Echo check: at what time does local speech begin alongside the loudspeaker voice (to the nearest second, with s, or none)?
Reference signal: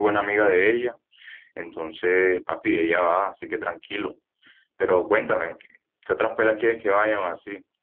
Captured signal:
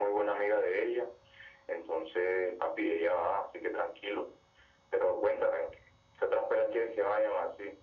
none